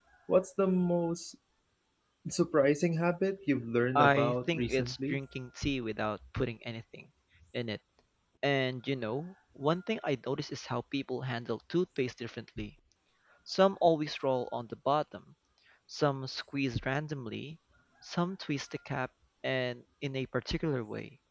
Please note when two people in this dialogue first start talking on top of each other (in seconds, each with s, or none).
4.0 s